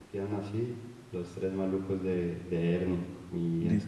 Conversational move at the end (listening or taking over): taking over